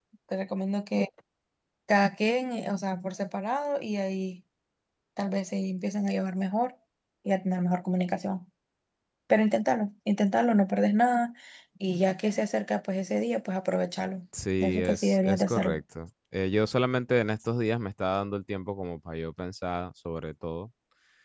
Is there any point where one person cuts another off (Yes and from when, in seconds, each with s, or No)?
Yes, from 14.6 s